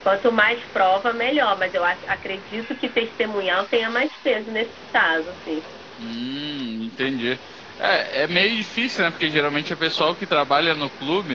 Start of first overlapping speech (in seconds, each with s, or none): none